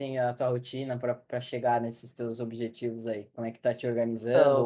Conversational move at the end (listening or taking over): listening